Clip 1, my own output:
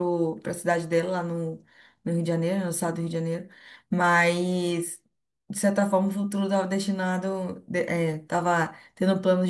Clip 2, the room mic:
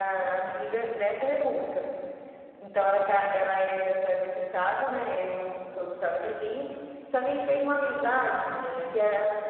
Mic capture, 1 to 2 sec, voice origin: user only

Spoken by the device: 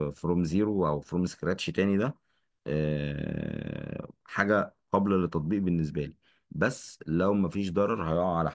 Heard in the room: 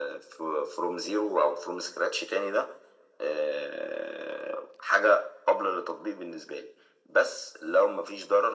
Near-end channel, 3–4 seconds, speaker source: echo only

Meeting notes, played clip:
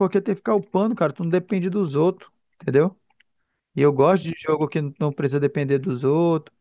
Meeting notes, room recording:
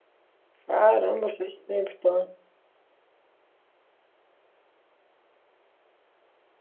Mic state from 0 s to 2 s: user only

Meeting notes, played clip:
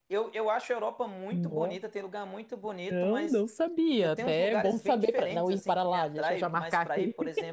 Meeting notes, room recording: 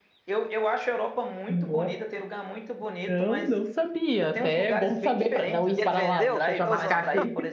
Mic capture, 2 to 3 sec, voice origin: echo only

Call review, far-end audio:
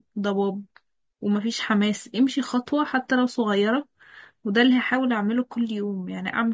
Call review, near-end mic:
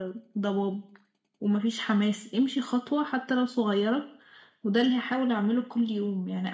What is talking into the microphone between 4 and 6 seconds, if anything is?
echo only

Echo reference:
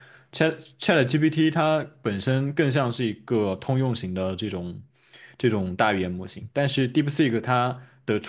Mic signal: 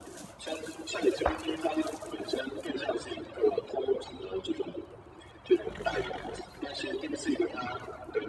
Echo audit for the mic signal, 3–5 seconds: echo only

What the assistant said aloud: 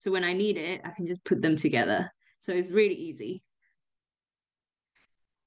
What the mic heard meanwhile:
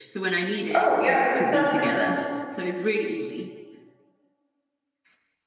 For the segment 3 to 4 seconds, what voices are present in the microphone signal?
echo only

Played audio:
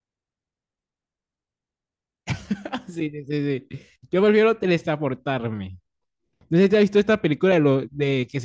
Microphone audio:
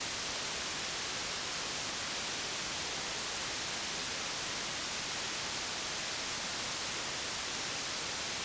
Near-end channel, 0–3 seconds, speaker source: neither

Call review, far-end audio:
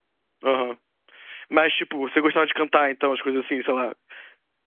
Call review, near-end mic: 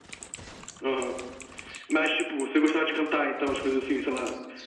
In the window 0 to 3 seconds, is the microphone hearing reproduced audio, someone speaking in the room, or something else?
echo only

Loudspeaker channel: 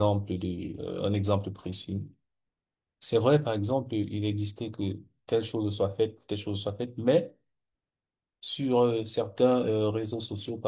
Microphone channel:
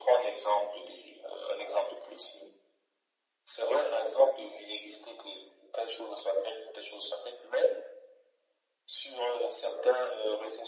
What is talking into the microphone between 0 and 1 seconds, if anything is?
echo only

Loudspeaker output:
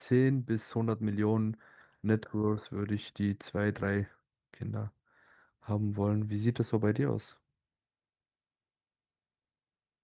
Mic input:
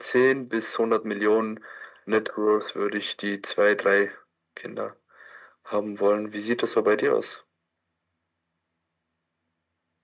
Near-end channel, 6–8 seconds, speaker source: echo only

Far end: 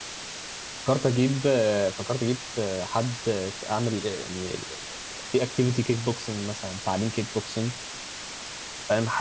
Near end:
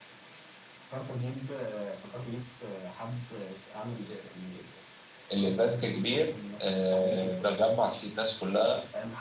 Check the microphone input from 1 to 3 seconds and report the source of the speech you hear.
echo only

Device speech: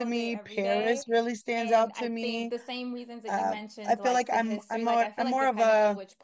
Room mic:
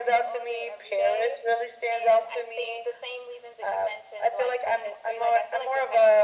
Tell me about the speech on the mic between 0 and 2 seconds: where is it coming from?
echo only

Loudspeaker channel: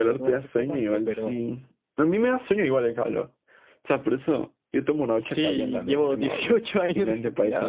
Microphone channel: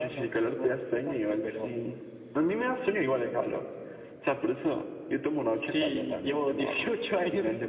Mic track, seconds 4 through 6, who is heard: echo only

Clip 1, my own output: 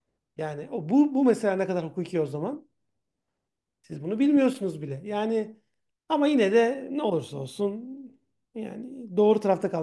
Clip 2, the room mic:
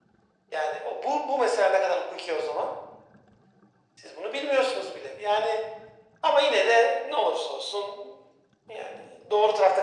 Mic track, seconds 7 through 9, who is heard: echo only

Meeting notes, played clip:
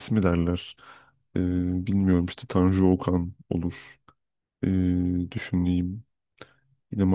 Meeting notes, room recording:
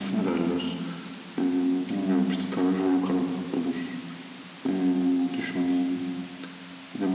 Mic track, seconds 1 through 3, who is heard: echo only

